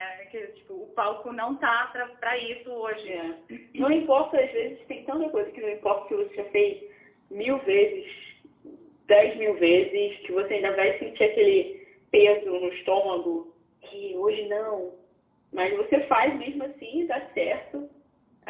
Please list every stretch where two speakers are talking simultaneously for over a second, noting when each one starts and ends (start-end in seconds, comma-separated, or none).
none